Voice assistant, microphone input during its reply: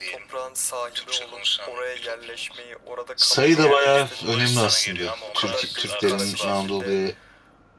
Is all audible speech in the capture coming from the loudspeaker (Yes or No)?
No